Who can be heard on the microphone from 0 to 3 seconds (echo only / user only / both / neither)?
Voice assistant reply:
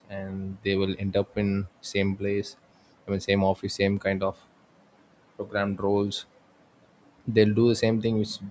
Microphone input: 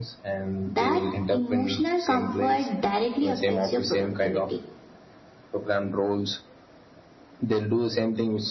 both